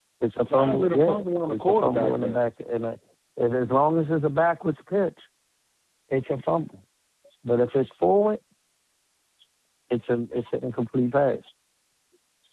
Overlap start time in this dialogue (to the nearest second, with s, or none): 1 s